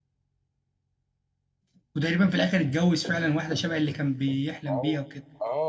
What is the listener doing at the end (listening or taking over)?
taking over